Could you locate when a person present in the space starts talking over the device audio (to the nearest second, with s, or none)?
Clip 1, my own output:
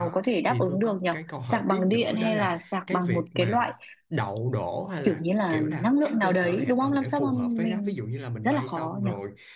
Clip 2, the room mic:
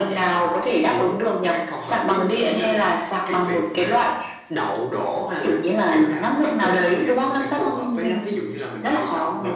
none